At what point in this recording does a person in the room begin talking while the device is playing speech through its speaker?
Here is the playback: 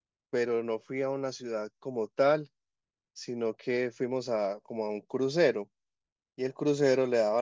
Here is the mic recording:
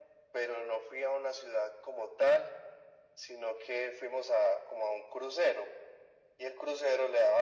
none

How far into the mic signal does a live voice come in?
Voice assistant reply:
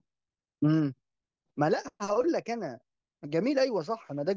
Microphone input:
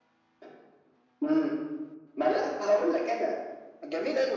none

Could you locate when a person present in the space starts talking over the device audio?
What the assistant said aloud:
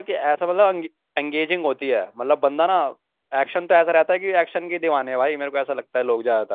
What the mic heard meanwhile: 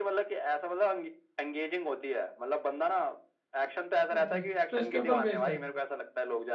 4.1 s

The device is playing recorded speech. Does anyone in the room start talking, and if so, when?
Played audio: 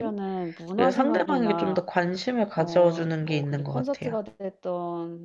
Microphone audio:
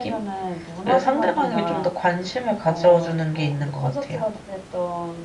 none

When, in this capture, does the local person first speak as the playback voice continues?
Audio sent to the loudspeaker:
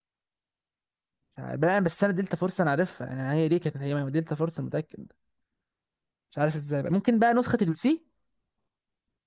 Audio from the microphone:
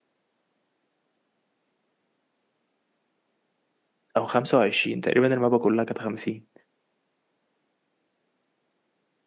4.2 s

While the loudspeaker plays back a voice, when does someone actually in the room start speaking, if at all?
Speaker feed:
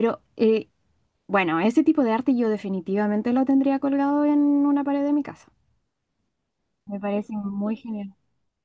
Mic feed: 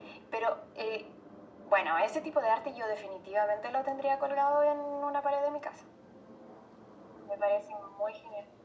none

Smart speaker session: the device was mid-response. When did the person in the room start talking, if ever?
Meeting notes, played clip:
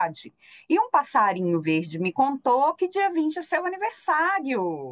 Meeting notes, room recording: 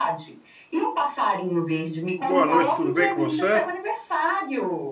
2.2 s

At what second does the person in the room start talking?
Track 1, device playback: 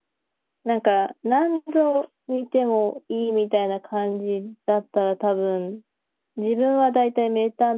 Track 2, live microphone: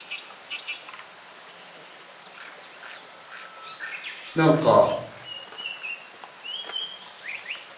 4.3 s

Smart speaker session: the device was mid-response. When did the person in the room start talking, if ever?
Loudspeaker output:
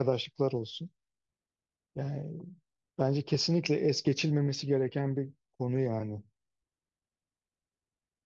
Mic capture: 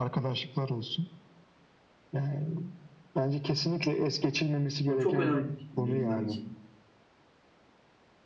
4.8 s

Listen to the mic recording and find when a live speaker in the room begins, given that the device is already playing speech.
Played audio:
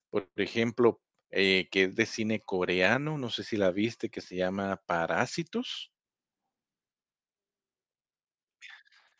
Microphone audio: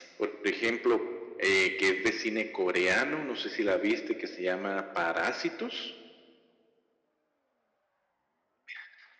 none

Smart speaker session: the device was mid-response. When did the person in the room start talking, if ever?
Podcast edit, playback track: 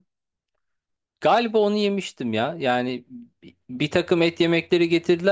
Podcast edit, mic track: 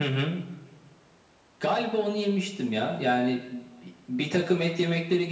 none

